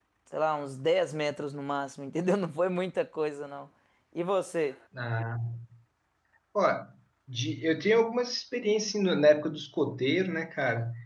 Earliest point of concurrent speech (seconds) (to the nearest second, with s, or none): none